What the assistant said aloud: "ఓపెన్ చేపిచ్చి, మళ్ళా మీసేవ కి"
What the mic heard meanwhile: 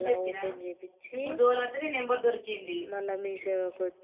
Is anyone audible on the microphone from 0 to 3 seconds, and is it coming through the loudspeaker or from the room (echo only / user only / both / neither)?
both